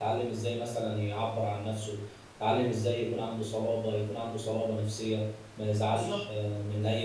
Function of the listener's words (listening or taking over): listening